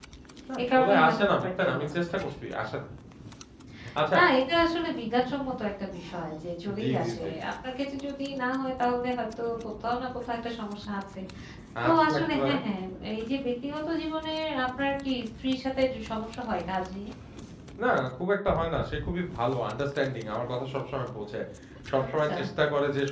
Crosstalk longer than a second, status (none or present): present